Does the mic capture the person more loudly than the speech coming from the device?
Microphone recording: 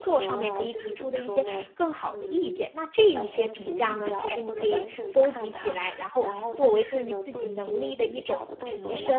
Yes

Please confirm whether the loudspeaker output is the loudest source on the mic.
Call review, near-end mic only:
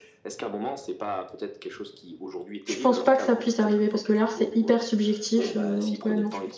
No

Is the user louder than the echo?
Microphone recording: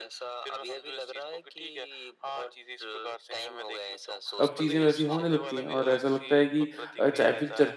Yes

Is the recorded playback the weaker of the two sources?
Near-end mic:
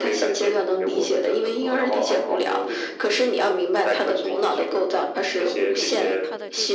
No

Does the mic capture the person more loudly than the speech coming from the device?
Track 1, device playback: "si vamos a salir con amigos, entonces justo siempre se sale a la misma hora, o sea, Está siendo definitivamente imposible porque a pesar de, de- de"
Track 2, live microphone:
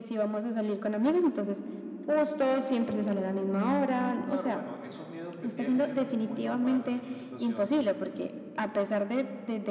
No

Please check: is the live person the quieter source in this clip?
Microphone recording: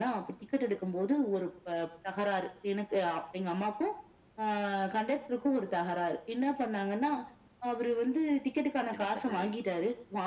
Yes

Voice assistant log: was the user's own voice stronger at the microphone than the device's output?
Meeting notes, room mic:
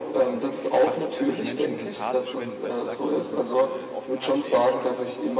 No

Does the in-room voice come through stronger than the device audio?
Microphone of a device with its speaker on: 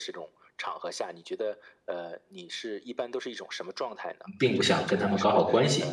Yes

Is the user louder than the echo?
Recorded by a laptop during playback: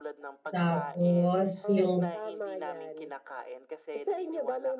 Yes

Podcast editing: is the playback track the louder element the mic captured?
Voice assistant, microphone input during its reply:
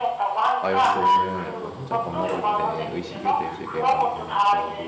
Yes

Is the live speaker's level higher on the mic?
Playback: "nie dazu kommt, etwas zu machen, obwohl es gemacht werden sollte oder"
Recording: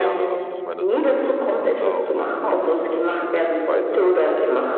No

